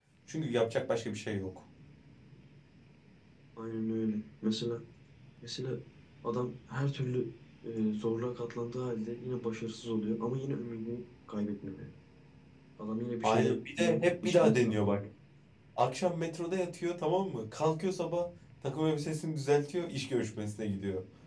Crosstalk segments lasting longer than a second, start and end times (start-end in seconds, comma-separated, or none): 13.2-15.0